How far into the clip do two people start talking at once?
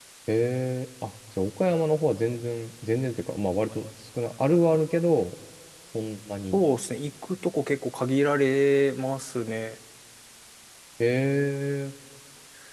none

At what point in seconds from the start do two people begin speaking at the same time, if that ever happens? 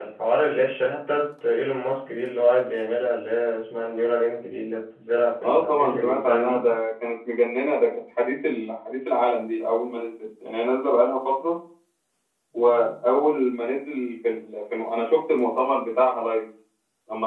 5 s

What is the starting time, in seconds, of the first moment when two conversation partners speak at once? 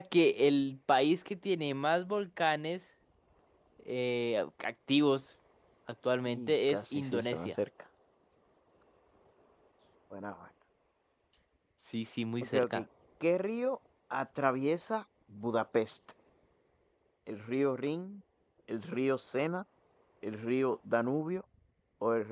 6 s

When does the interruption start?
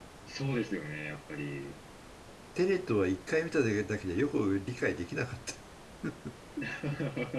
none

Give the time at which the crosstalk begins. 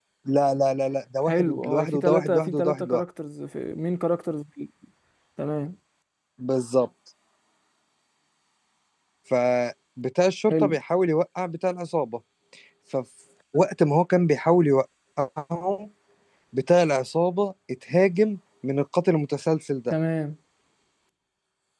1 s

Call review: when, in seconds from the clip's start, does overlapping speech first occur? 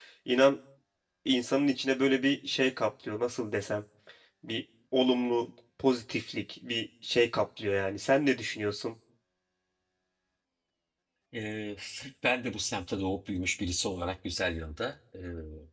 none

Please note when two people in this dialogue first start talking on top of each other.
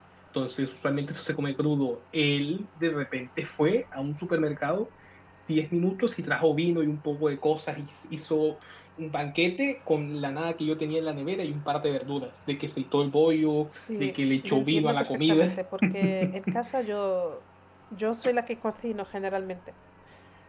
14 s

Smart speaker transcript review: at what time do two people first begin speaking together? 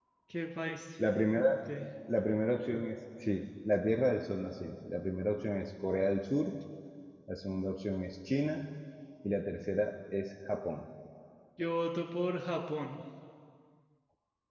none

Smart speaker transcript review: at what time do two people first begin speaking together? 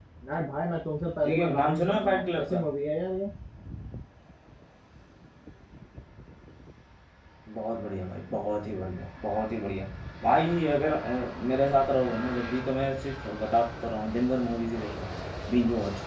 1 s

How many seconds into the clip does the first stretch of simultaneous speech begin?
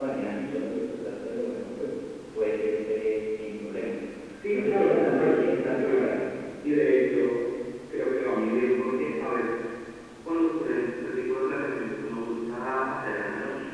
4 s

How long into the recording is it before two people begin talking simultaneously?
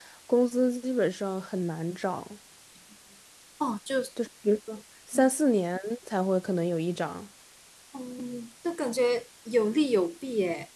none

